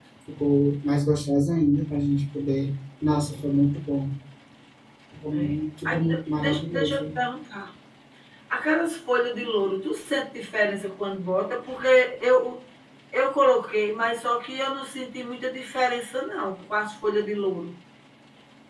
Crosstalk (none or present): present